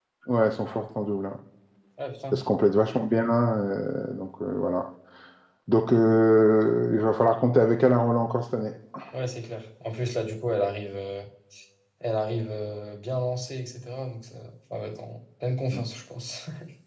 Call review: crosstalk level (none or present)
none